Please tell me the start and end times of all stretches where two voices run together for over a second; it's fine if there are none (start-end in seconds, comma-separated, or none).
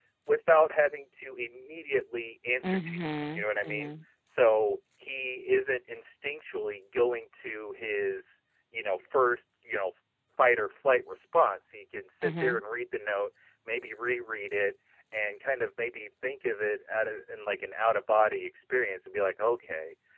2.6-3.9